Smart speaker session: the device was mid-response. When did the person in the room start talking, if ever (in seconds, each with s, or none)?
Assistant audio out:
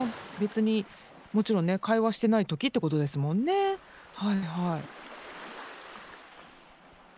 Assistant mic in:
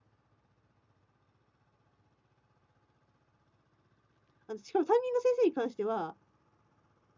4.5 s